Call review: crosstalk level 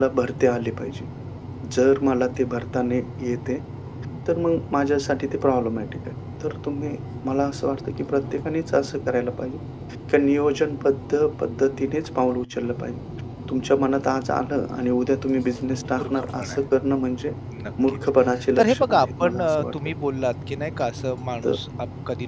present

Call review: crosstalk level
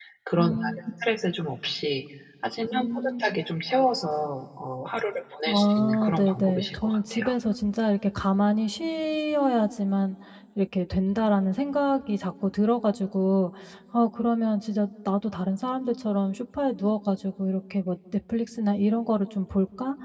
present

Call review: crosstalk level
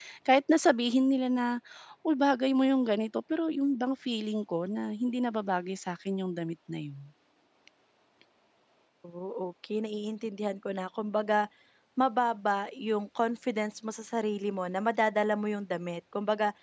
none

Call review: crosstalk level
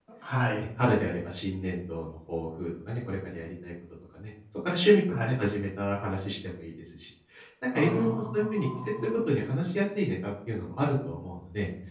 present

